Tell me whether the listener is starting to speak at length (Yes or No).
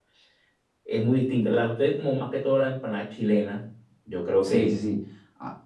Yes